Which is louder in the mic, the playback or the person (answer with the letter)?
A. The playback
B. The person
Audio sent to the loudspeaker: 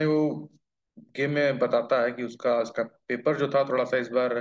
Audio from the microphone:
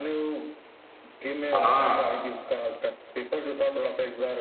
B